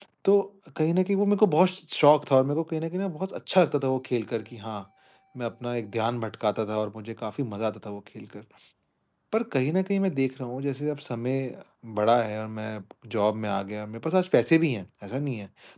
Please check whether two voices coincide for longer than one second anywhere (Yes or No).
No